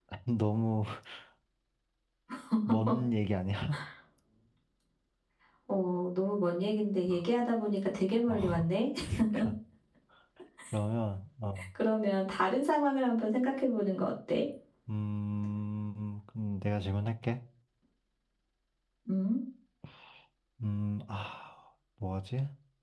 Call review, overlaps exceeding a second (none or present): none